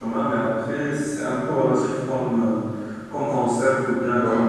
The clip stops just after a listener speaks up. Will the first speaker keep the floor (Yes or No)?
Yes